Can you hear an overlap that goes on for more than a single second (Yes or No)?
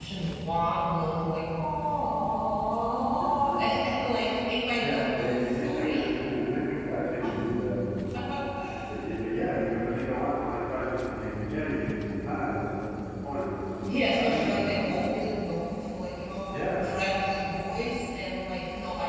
Yes